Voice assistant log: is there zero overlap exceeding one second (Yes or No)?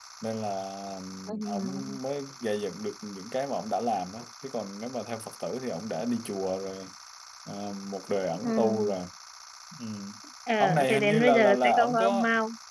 No